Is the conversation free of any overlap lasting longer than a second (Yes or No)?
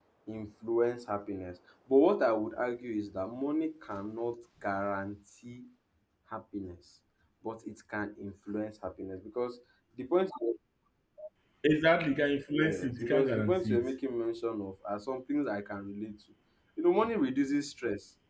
No